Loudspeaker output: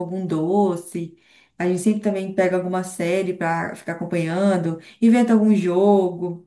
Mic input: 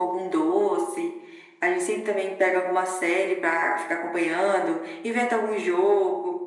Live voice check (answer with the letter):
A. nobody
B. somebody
A